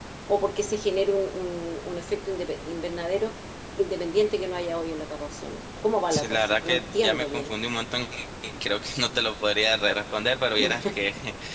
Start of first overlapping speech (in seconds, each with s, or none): 6.1 s